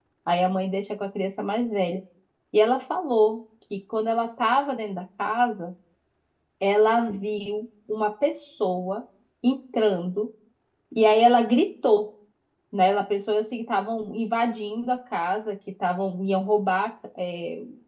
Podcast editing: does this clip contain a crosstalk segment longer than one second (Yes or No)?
No